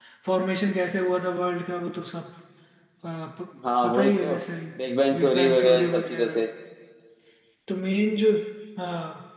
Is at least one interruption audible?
Yes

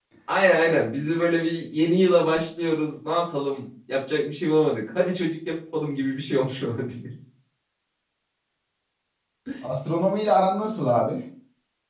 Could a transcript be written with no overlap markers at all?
Yes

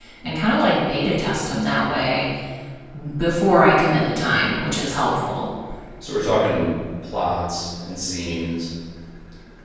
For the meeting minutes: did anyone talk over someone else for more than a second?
No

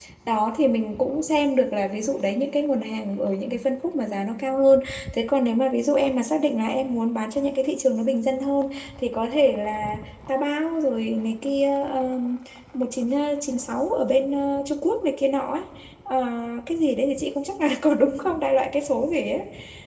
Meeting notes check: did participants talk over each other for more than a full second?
No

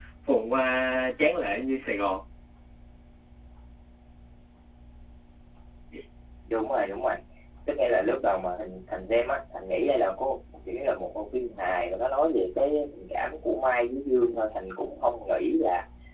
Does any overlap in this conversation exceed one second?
No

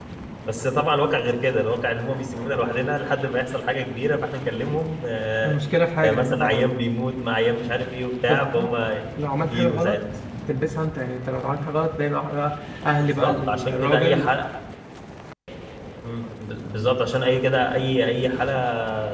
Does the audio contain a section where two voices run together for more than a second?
Yes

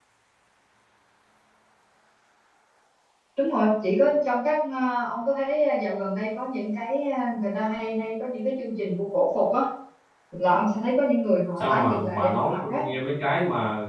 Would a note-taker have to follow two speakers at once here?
Yes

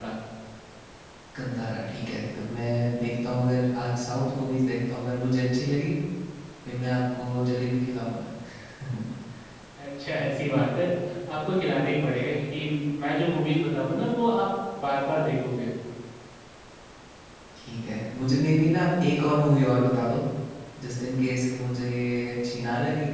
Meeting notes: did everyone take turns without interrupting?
Yes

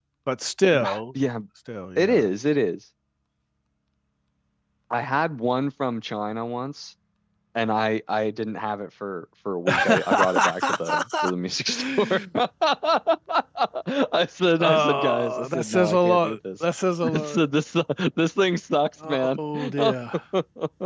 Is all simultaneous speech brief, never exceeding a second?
No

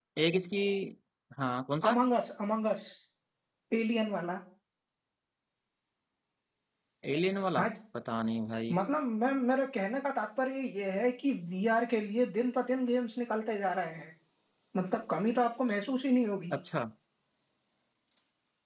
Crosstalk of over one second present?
No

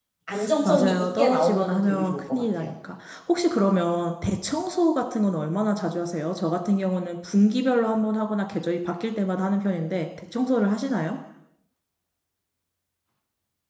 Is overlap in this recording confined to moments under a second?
No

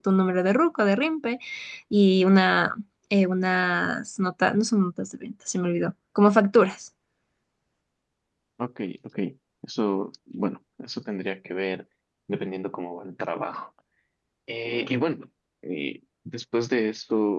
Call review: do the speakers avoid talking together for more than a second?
Yes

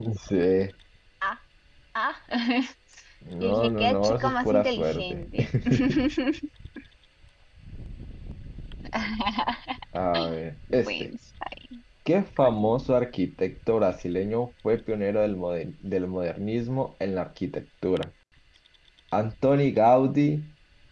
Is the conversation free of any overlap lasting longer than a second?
No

